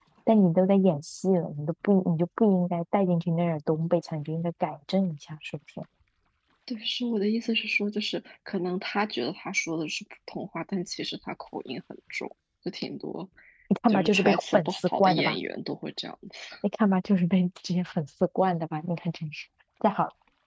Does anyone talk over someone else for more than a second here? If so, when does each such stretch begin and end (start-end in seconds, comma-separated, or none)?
13.9-15.4